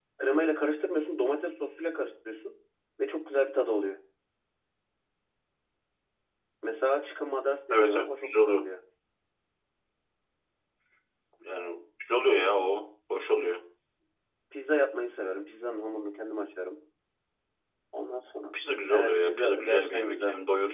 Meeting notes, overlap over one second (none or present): present